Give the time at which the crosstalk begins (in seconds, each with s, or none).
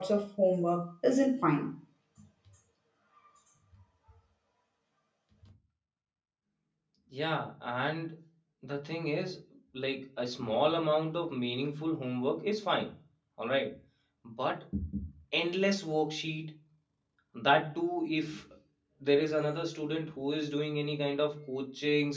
none